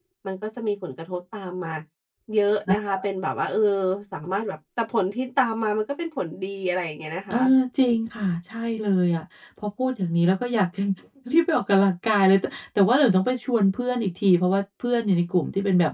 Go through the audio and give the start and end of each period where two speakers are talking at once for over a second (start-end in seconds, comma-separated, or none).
none